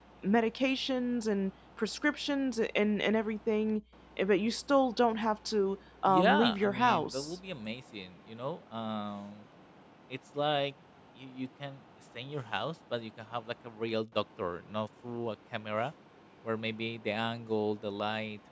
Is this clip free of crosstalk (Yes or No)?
No